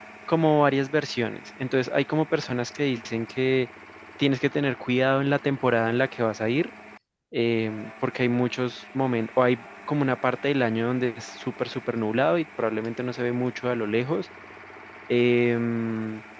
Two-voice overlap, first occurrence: none

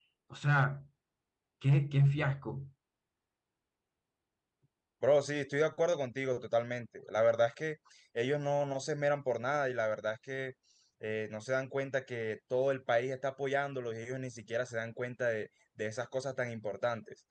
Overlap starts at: none

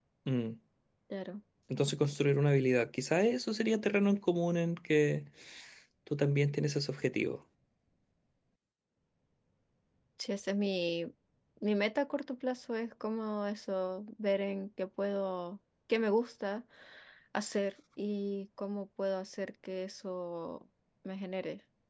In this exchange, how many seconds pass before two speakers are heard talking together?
none

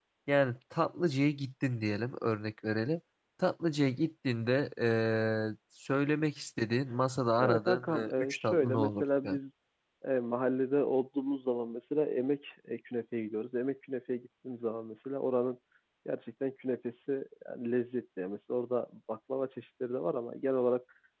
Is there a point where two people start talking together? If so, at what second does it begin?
7.4 s

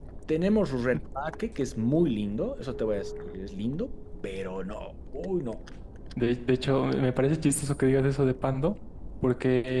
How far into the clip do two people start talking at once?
none

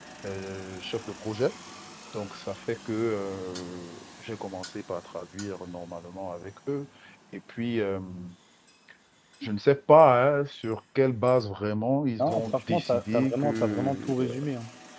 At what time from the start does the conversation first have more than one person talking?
12.2 s

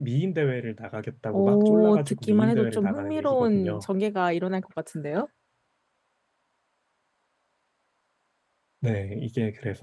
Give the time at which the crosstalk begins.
1.3 s

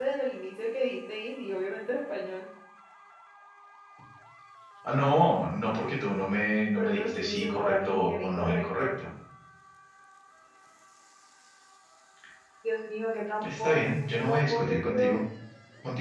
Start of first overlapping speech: 6.8 s

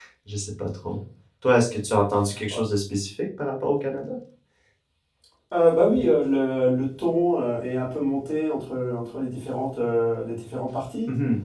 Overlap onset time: none

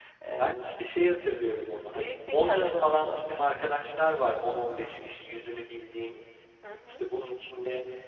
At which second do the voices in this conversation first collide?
1.8 s

